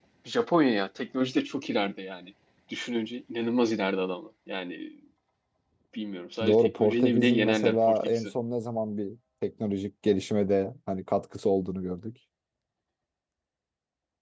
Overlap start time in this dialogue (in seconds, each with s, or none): 6.5 s